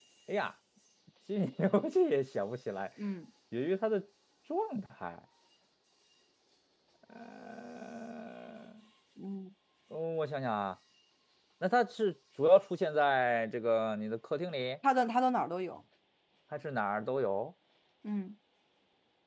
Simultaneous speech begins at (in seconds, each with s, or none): none